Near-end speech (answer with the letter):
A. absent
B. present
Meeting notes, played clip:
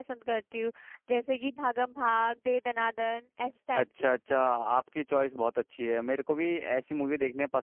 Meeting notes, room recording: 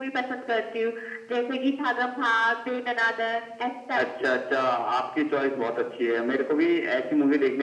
A